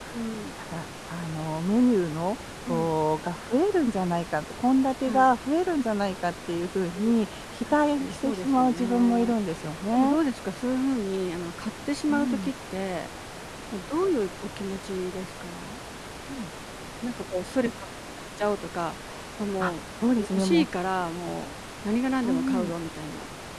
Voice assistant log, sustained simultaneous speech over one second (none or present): present